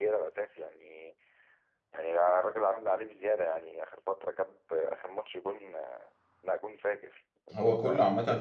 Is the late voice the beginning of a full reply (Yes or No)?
Yes